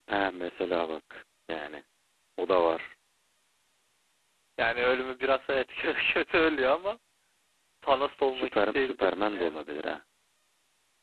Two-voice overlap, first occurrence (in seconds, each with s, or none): 8.3 s